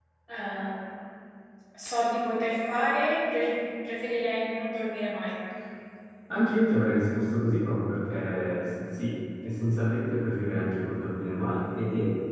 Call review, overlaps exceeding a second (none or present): none